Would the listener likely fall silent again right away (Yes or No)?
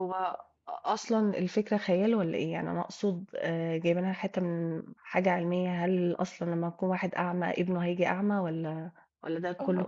No